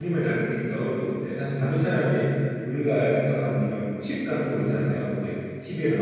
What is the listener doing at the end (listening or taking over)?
listening